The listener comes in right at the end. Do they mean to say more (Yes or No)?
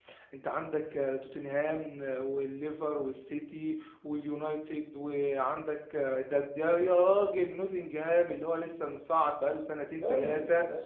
Yes